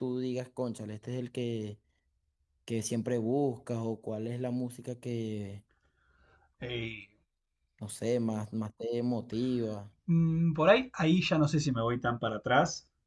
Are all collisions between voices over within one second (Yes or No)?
Yes